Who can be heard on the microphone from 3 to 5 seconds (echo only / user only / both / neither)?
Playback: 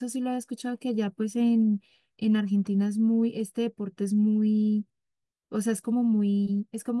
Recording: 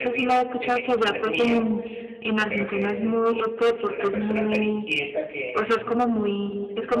both